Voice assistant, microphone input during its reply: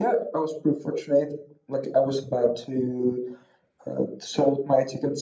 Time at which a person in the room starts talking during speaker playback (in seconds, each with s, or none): none